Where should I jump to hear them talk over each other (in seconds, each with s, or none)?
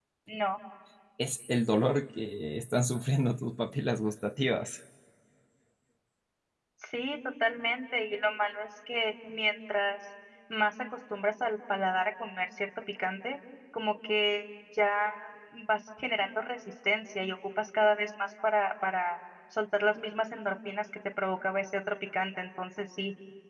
none